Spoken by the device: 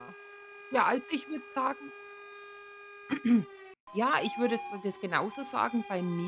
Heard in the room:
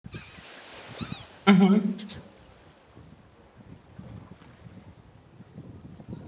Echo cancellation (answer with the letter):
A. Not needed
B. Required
A